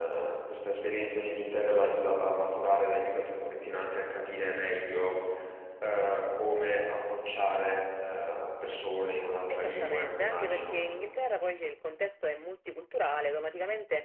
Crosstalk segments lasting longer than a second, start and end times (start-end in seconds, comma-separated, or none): 9.5-10.7